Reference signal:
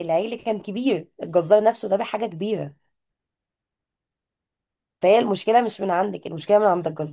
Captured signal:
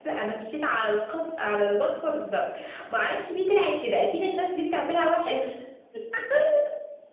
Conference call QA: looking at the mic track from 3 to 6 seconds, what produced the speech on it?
user only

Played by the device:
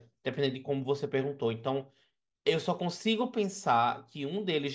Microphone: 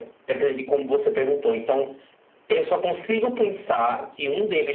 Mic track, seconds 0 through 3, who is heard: echo only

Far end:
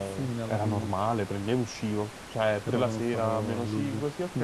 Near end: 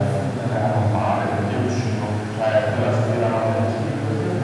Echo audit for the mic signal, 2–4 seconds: both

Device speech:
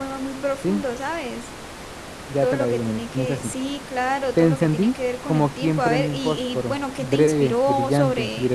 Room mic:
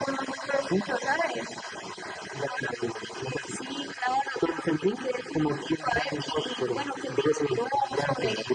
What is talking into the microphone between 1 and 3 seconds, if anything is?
echo only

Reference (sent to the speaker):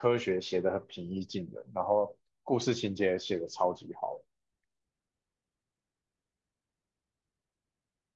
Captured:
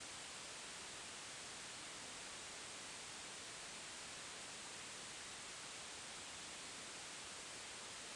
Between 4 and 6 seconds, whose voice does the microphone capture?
neither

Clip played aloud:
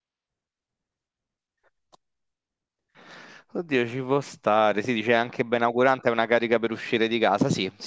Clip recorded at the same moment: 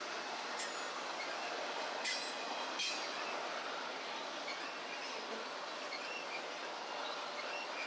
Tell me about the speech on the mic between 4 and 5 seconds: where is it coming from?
neither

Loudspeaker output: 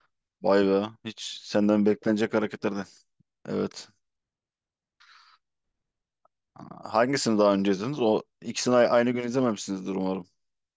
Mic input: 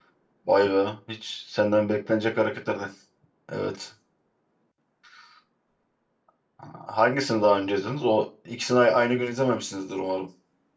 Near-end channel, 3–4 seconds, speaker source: echo only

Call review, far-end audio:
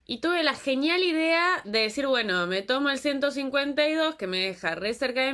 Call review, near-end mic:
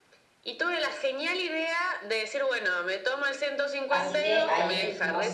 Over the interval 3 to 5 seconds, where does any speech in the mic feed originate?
both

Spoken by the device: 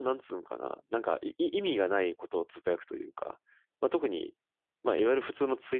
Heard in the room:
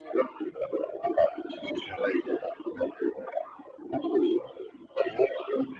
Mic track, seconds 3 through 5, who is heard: echo only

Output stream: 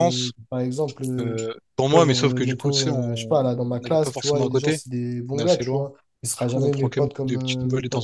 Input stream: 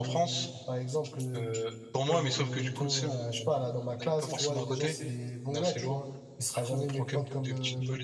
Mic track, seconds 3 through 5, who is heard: echo only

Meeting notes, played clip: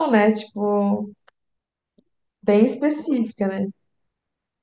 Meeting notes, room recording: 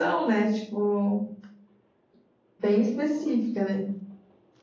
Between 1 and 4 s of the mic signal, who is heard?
echo only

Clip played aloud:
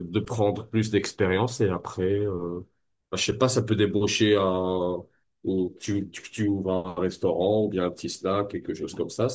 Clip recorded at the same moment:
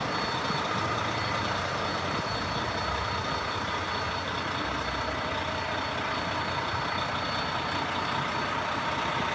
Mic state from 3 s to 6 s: neither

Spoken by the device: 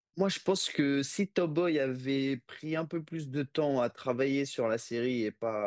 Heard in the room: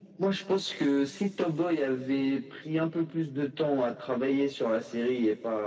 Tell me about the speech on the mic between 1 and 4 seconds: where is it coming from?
echo only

